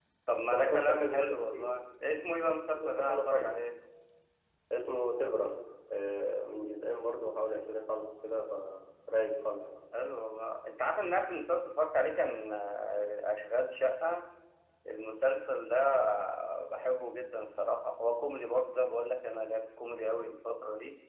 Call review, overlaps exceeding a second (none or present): present